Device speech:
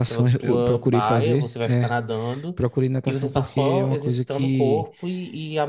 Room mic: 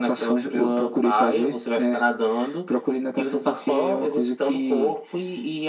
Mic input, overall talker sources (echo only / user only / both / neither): echo only